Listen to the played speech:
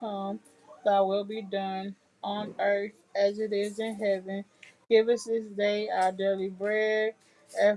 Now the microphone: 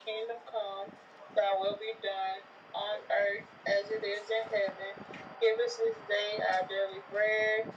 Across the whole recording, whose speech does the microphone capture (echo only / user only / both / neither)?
echo only